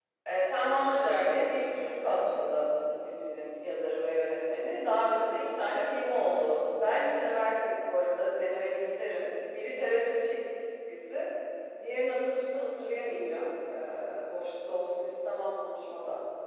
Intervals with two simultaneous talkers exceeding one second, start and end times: 0.9-2.2

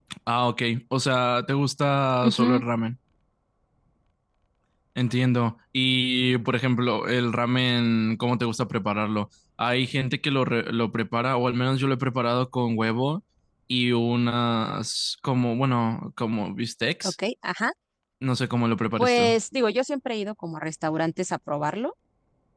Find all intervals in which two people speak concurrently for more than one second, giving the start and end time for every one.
none

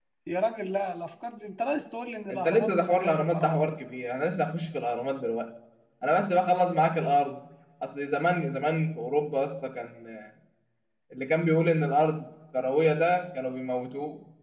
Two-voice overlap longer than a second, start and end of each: 2.3-3.7

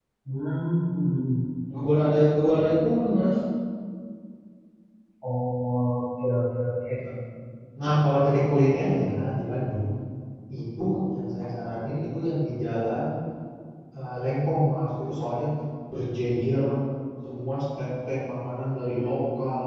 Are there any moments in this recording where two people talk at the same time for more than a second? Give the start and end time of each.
none

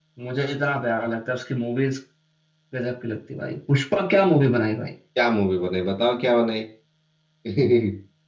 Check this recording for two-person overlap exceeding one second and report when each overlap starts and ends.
none

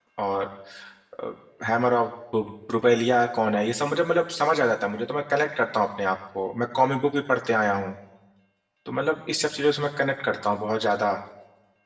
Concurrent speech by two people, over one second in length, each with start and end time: none

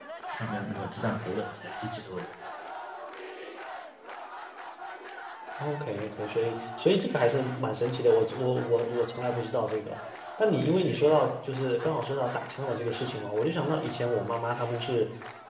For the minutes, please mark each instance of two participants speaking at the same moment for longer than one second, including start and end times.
none

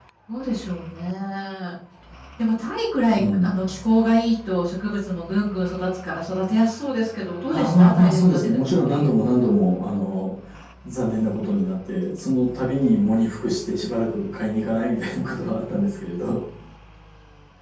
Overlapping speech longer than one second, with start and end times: 7.5-9.1

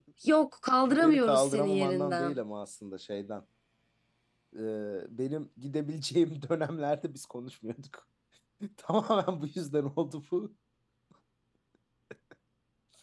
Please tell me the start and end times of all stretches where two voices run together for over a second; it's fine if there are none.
0.9-2.4

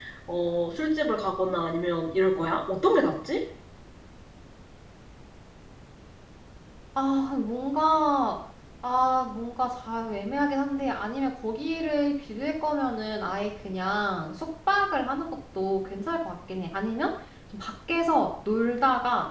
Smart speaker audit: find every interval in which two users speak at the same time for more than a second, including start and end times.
none

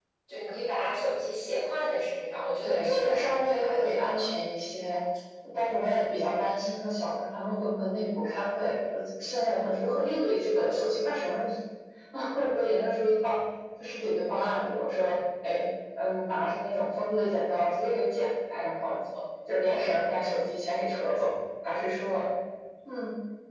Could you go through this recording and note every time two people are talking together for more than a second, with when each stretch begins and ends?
2.6-4.3

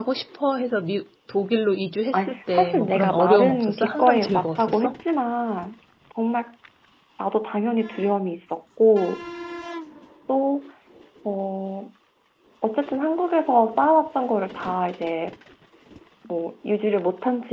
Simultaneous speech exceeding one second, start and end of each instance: 2.1-4.9

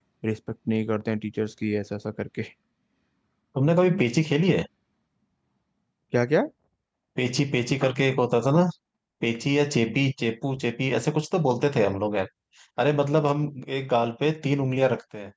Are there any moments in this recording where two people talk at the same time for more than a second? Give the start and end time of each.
none

